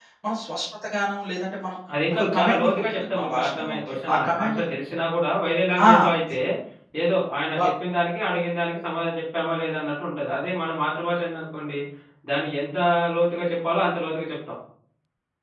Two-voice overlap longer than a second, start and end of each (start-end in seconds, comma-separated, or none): 2.1-4.7